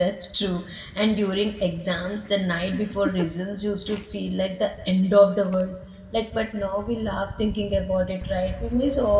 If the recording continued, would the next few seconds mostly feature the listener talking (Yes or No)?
Yes